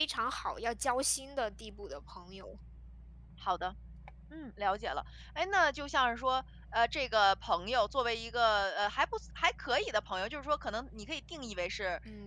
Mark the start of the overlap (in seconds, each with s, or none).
none